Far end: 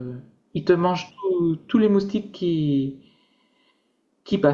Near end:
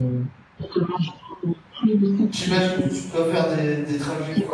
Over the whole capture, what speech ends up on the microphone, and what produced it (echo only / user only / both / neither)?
both